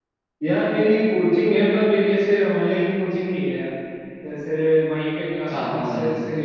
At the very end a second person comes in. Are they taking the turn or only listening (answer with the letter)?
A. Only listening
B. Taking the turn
A